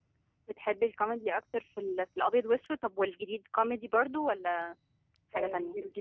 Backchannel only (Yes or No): No